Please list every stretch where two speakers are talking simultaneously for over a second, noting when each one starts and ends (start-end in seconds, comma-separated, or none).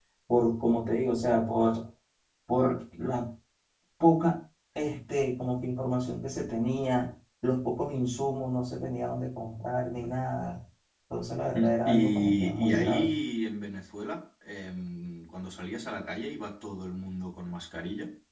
11.5-13.2